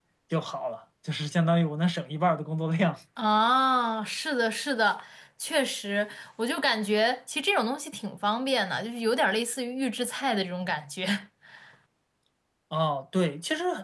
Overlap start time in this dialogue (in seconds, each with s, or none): none